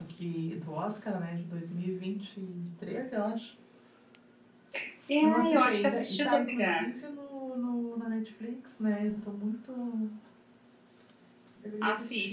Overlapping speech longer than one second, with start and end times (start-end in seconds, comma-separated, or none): 5.2-6.8